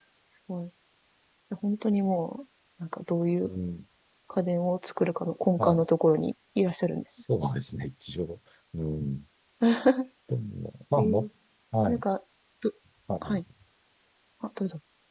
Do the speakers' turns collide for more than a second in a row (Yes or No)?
No